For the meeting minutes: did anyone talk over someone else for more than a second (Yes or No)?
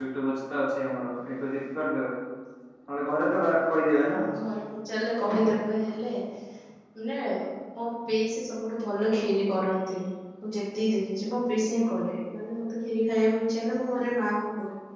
No